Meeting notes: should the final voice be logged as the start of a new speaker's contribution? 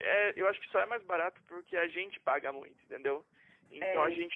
No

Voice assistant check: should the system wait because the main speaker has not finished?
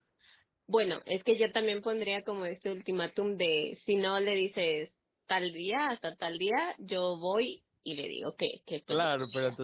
No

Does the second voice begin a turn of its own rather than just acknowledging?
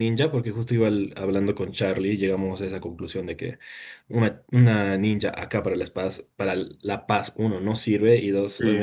No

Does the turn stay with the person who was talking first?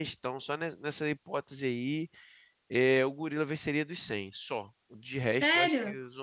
No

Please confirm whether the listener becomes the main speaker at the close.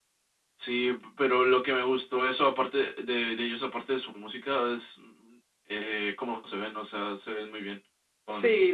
Yes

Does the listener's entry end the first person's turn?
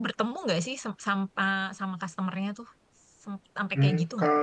Yes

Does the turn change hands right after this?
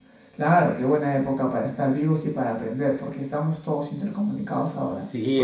Yes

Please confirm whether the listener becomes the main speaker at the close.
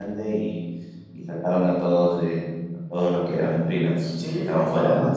Yes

